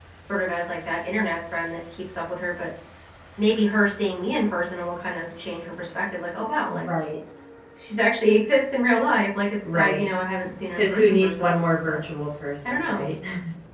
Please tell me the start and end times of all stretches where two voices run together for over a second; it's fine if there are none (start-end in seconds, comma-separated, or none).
10.7-12.0